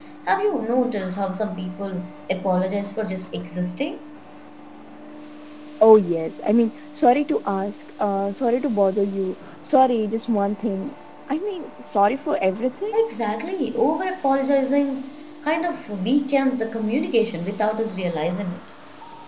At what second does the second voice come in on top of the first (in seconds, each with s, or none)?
none